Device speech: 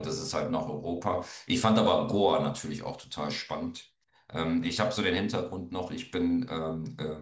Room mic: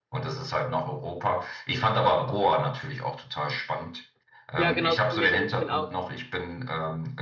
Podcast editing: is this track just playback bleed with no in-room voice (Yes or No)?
No